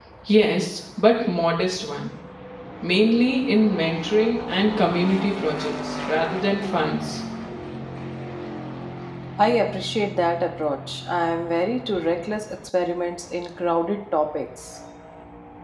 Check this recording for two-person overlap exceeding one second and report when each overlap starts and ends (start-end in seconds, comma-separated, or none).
none